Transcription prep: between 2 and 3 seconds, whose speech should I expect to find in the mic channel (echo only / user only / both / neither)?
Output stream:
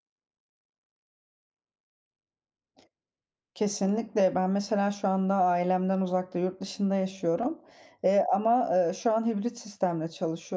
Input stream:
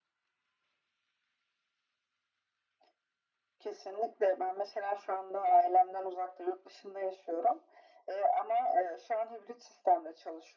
neither